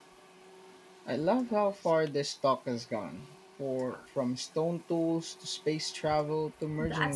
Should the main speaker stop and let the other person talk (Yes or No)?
Yes